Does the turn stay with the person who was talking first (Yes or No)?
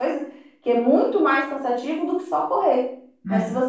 Yes